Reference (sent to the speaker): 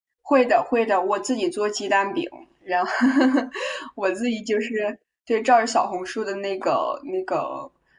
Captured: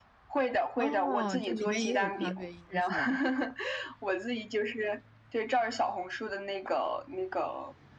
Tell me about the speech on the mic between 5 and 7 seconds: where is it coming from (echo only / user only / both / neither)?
echo only